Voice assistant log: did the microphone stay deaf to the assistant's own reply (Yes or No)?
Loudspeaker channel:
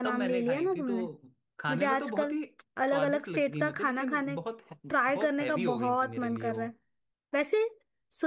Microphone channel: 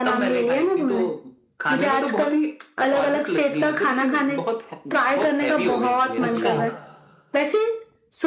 No